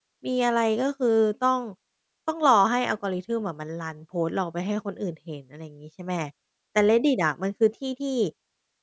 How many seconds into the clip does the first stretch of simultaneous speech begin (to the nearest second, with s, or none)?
none